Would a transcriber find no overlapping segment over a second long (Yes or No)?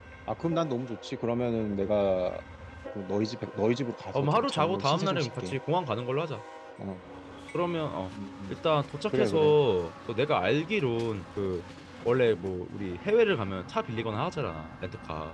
No